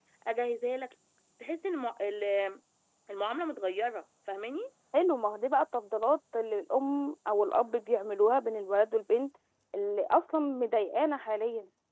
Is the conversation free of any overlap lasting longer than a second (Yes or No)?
Yes